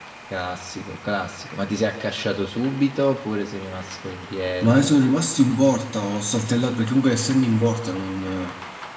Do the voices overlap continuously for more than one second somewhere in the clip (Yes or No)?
No